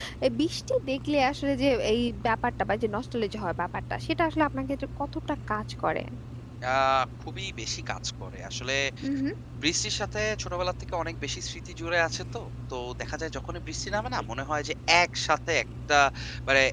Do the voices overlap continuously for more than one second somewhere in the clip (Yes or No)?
No